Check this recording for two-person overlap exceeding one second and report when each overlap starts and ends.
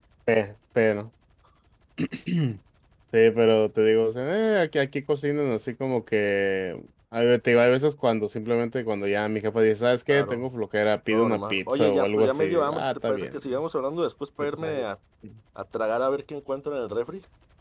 11.1-13.4

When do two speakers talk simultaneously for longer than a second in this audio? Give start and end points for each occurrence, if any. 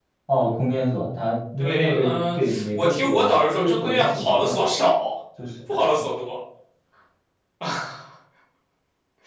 1.6-4.7

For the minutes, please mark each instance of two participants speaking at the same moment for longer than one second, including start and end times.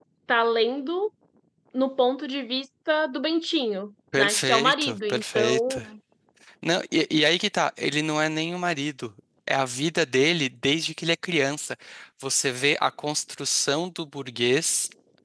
4.2-5.8

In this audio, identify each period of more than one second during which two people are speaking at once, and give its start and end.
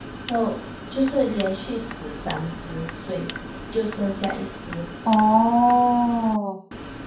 none

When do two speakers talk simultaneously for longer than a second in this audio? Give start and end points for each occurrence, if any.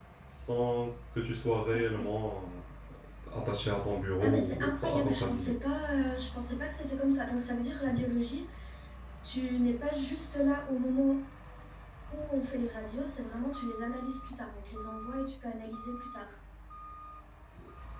4.2-5.5

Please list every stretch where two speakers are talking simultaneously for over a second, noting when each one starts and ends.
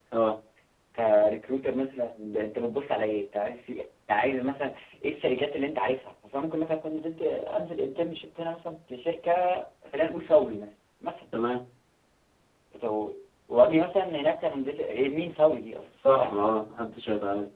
none

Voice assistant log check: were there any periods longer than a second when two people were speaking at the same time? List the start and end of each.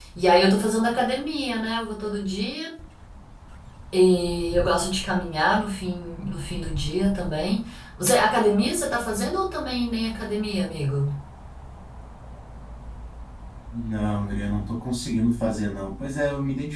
none

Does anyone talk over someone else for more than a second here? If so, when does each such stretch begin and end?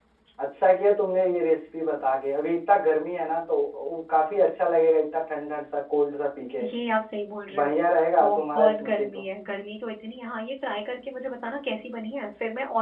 7.5-9.2

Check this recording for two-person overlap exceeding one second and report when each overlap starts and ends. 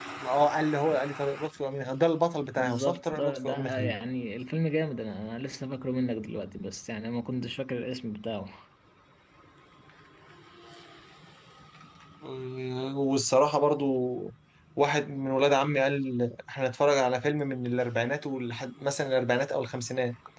2.6-4.0

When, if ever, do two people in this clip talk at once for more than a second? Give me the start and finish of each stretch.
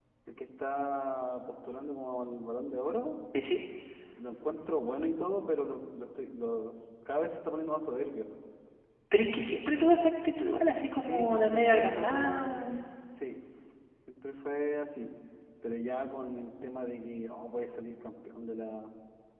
11.0-12.5

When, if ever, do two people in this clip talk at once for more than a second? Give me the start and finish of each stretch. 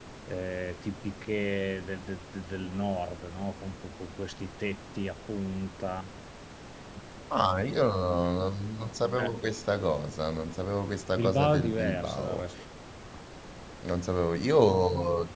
11.2-12.4

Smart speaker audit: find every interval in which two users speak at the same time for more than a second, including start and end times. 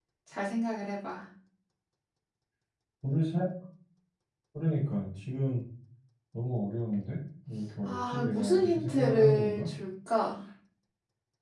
7.8-9.7

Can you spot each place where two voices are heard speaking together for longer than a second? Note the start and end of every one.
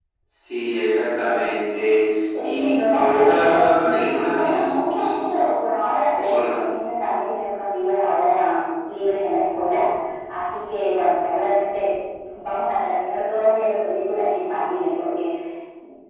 2.4-5.3

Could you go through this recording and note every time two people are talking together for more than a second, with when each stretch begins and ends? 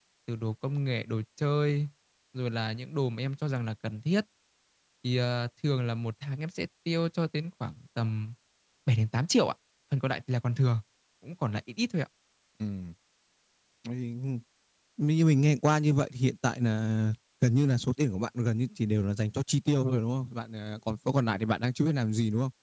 none

